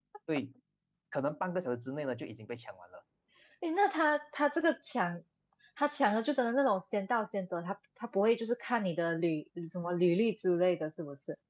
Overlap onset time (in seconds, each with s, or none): none